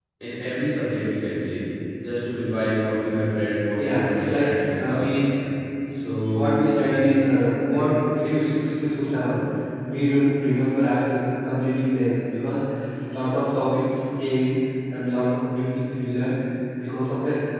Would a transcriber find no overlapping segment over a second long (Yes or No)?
No